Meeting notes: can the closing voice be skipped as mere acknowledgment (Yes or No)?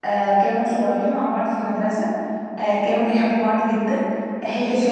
Yes